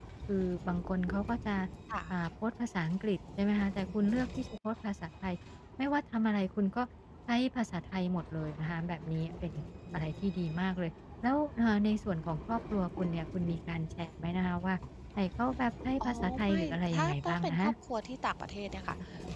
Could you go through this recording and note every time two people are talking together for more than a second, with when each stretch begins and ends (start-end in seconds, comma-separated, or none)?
16.0-17.7